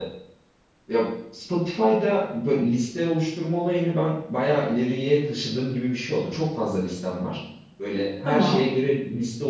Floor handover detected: No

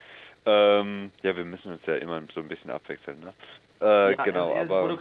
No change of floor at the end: No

